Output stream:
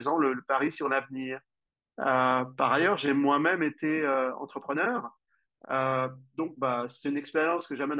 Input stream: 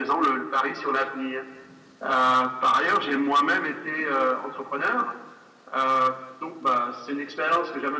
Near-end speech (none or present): none